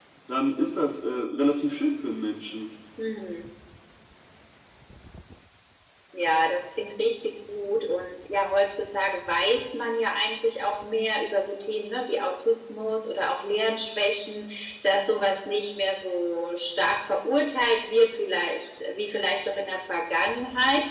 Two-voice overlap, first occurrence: none

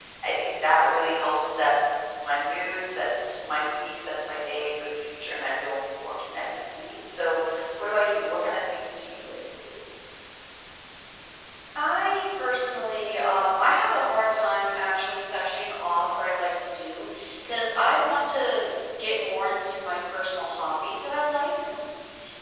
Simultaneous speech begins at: none

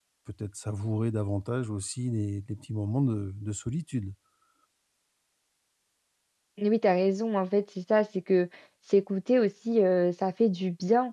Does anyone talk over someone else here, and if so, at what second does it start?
none

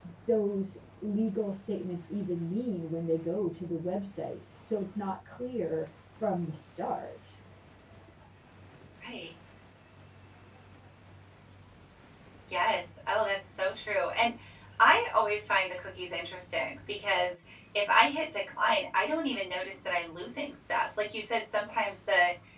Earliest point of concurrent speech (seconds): none

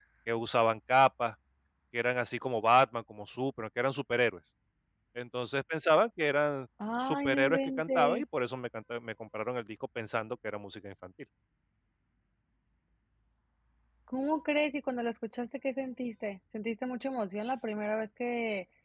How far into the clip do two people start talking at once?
7 s

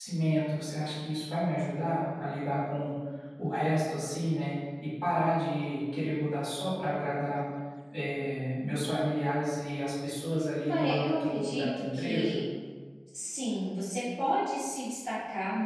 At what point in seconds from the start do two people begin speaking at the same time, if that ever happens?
11 s

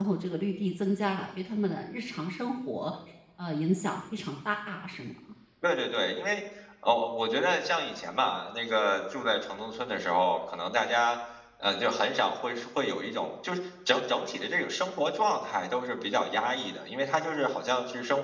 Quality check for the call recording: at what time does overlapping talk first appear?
none

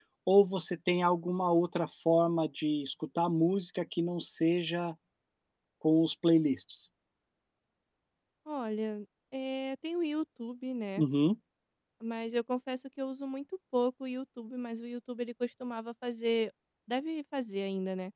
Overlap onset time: none

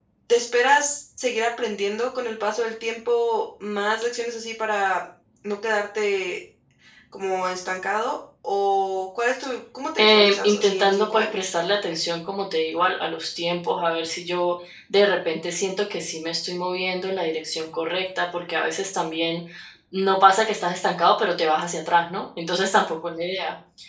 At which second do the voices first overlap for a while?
10 s

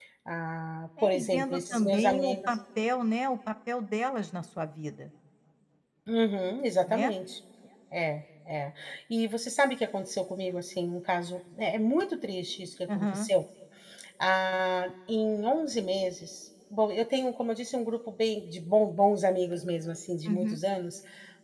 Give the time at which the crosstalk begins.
1 s

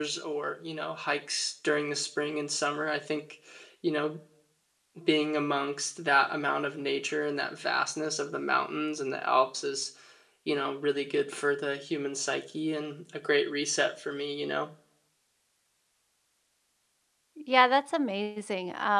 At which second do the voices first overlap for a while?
none

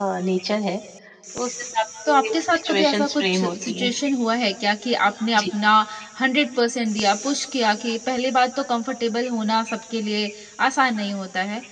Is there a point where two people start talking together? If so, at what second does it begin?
2 s

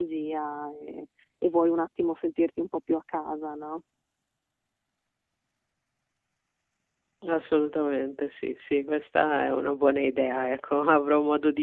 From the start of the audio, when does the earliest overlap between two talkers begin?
none

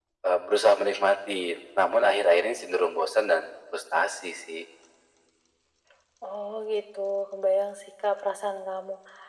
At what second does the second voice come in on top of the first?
none

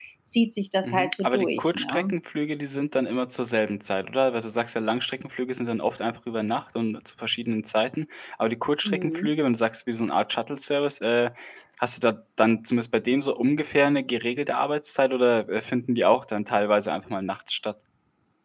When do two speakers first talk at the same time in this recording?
1 s

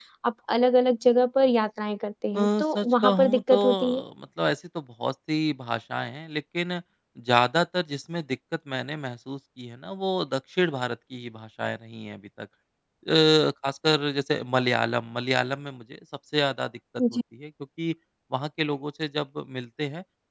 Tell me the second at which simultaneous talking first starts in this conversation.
2 s

